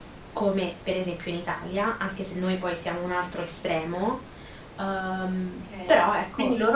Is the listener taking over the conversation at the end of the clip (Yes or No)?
Yes